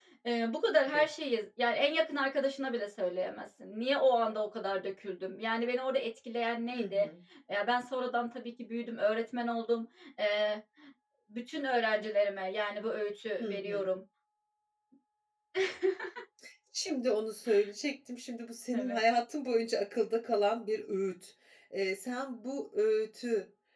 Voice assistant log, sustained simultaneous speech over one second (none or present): none